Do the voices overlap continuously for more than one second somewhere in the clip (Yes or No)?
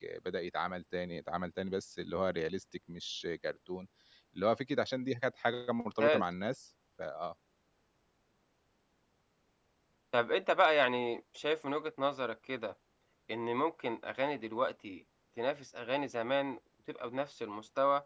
No